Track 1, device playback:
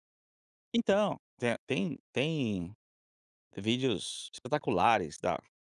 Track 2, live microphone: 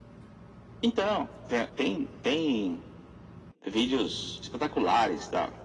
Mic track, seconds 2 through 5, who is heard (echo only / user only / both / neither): echo only